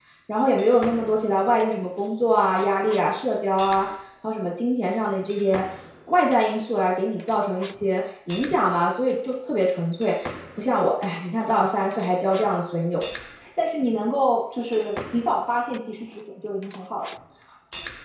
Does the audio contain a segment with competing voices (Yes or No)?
No